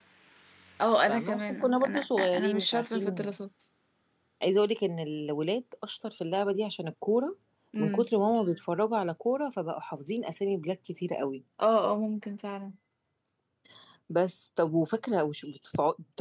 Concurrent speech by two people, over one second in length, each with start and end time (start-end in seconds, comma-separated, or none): 1.1-3.3